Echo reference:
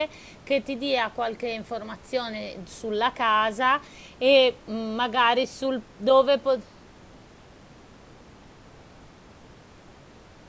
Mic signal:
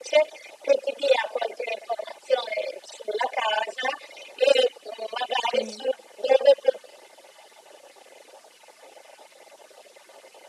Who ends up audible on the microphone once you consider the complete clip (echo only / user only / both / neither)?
both